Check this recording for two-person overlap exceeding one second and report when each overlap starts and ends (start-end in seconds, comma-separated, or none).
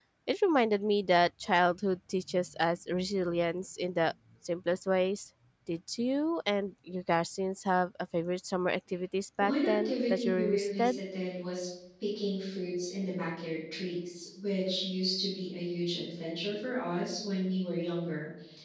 9.4-11.0